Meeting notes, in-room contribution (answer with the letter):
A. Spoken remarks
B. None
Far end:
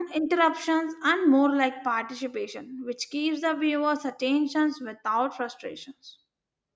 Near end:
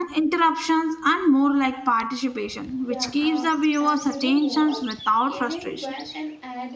A